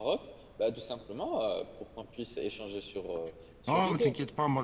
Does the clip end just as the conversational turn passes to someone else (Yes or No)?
Yes